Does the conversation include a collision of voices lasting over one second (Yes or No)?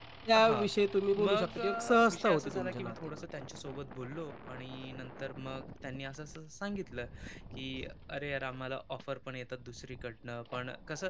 Yes